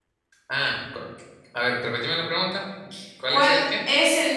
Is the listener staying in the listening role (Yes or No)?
No